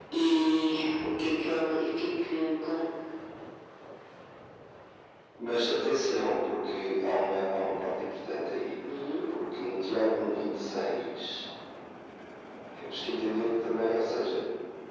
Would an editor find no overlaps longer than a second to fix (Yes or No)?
Yes